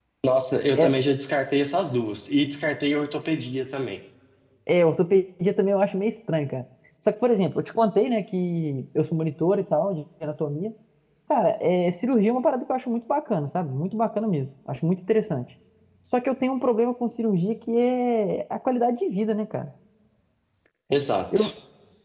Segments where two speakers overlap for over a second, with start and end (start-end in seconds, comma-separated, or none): none